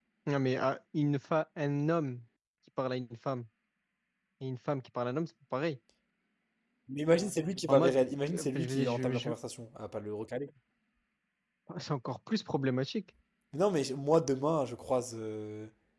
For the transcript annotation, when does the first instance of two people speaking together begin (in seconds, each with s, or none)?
7.7 s